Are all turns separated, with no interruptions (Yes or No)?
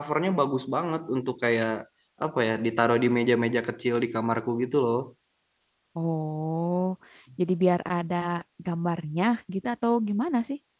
Yes